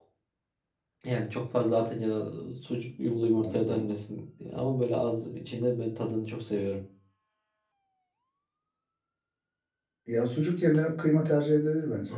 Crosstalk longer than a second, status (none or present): none